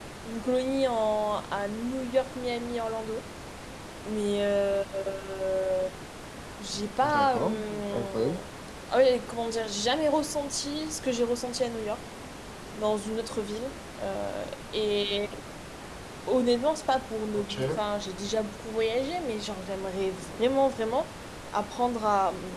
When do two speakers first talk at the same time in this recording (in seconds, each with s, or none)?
7.0 s